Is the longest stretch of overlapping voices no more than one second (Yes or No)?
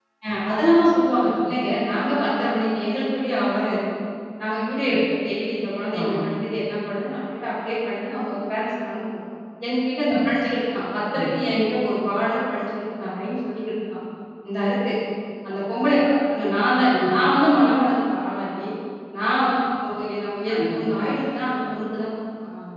Yes